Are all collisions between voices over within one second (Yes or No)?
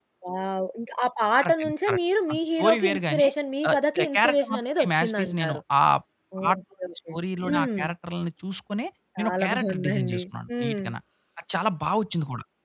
No